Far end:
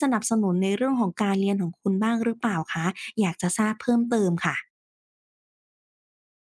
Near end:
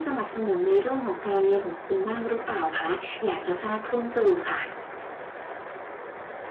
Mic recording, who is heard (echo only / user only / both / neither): echo only